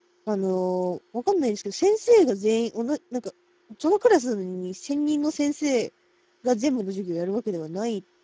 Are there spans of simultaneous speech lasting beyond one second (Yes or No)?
No